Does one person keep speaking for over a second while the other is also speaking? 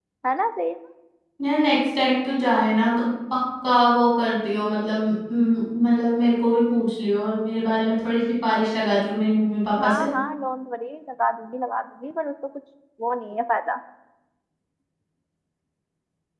No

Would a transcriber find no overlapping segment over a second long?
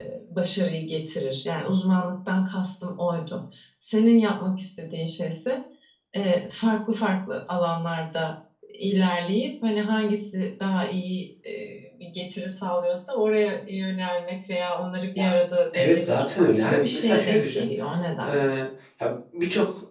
No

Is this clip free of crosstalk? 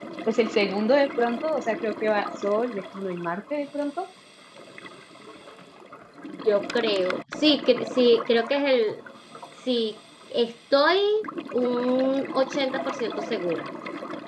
Yes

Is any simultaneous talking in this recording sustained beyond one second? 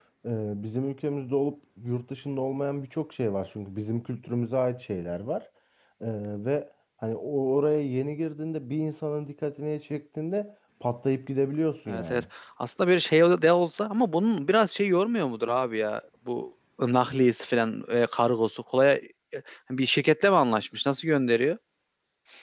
No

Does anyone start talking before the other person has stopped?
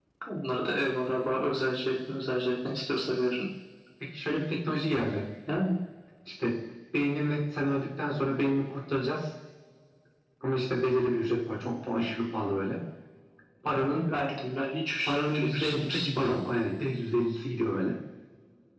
Yes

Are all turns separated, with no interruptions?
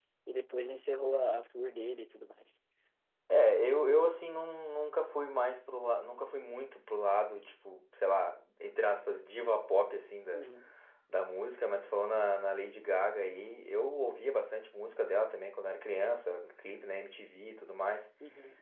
Yes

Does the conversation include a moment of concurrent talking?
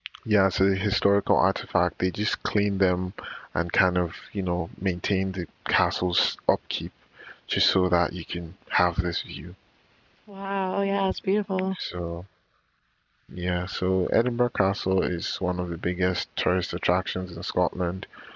No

